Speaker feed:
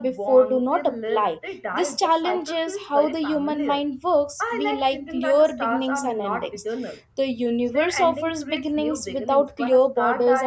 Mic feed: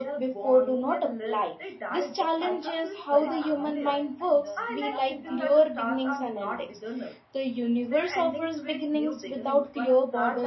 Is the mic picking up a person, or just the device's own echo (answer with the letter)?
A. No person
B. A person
B